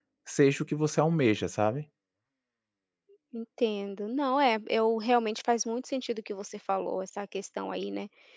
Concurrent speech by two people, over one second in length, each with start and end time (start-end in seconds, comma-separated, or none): none